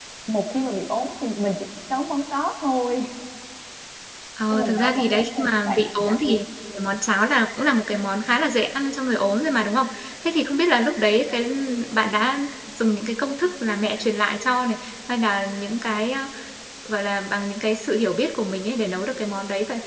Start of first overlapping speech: 5 s

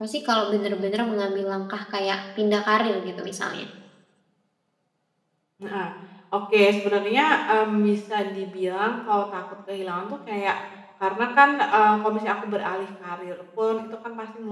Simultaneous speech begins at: none

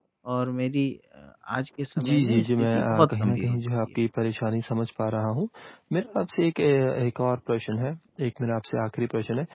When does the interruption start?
2 s

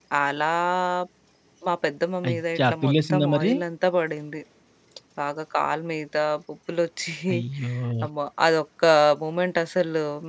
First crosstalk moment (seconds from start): 2 s

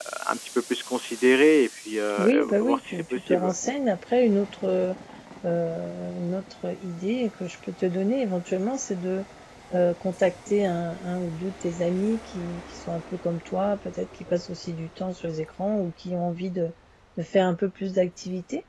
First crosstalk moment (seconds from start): 2 s

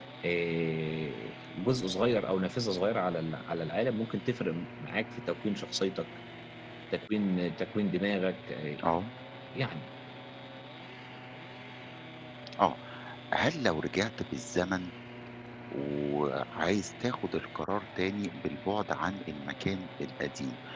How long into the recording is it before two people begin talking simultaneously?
none

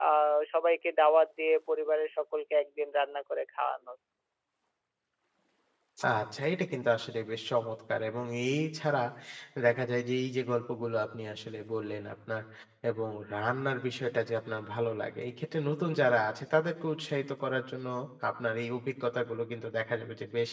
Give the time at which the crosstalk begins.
none

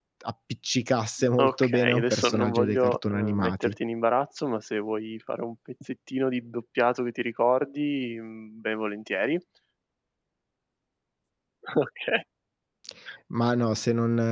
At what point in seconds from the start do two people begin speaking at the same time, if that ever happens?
1 s

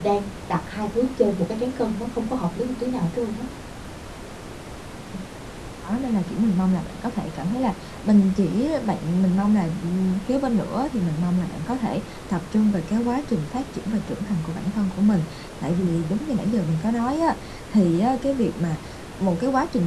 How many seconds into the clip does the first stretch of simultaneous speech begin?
none

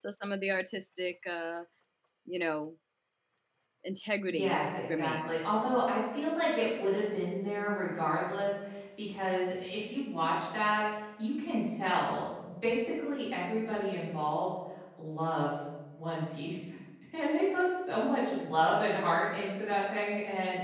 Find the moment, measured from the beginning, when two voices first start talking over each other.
4 s

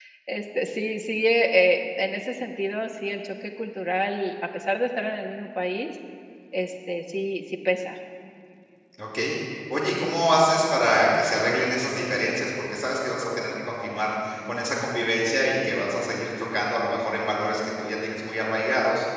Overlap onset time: none

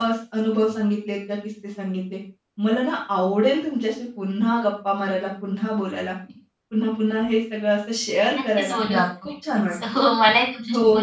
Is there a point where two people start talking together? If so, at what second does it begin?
9 s

